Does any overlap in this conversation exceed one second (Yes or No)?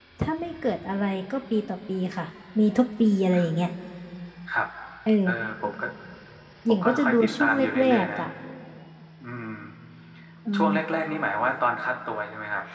Yes